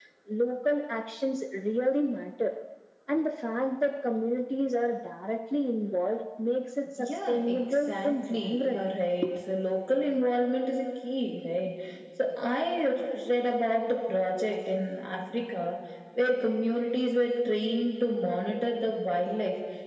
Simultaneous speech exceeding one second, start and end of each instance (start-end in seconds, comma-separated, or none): 7.0-8.8